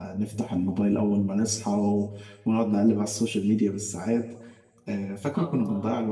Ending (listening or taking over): listening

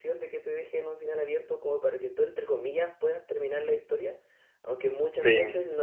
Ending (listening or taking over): listening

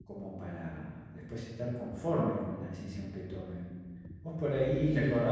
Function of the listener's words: listening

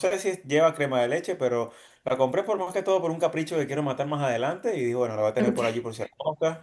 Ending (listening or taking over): listening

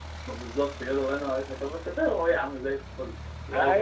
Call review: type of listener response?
taking over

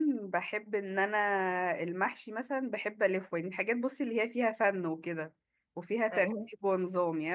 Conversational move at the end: listening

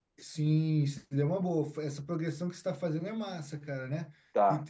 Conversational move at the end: listening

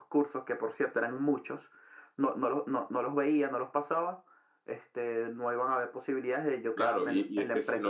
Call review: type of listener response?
taking over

